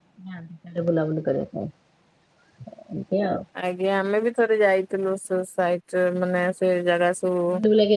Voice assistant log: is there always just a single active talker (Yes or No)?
Yes